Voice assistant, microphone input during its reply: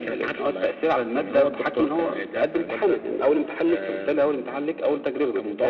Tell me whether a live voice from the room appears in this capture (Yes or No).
No